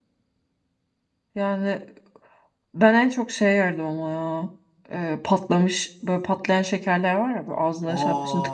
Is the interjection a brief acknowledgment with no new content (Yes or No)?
No